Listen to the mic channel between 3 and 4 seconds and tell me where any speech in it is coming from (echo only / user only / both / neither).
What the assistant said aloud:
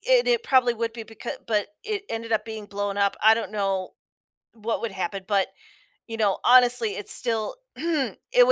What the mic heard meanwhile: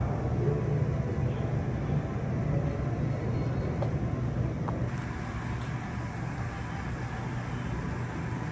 neither